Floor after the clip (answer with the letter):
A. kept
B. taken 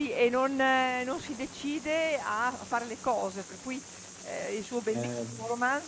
A